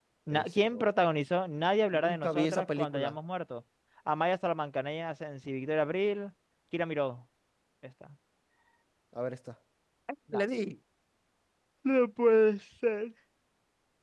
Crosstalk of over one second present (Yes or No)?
Yes